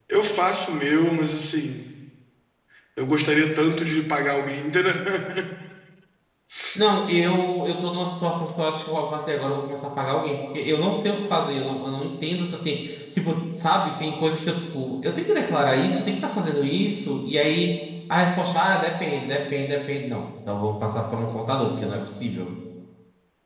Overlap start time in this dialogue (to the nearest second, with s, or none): none